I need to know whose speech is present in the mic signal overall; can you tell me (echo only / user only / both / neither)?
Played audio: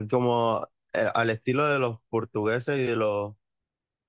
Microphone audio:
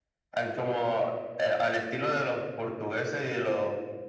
echo only